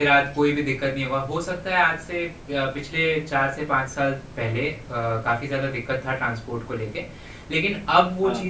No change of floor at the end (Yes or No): Yes